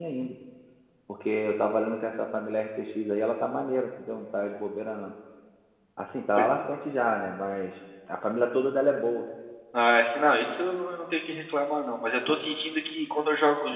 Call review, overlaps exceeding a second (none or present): none